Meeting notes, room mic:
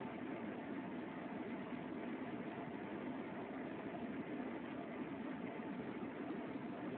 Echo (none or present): none